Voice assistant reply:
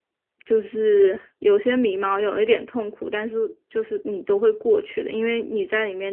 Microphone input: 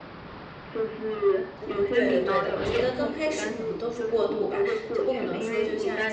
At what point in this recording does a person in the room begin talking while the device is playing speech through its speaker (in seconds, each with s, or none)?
1.6 s